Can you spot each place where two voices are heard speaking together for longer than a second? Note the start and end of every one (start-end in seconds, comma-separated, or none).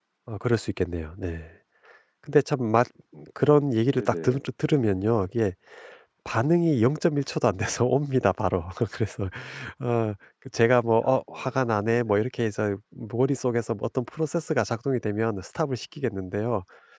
11.0-12.2